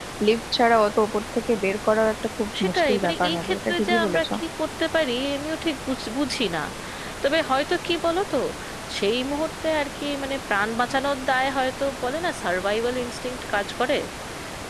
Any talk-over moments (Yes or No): Yes